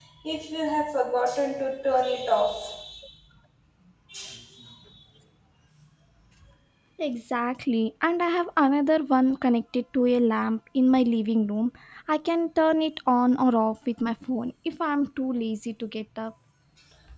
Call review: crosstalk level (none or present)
none